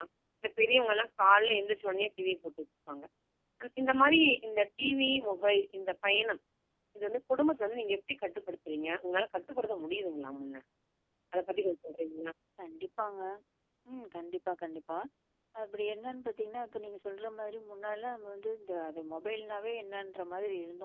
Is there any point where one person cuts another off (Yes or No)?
No